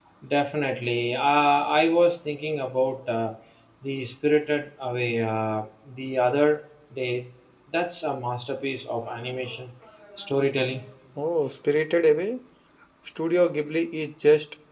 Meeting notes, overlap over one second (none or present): none